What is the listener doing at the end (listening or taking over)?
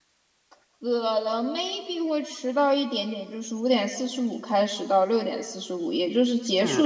listening